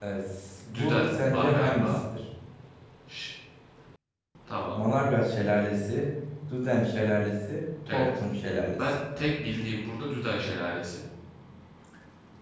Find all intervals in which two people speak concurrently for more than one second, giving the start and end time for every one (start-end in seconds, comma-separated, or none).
0.7-2.0